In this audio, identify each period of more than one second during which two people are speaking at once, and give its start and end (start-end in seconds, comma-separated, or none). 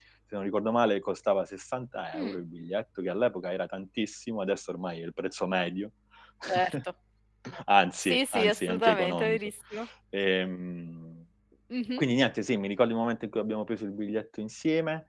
8.0-9.4